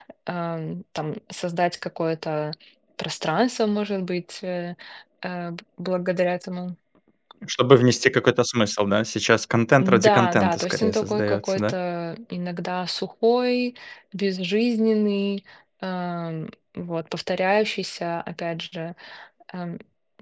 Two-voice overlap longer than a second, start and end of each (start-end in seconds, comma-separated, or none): 9.8-11.7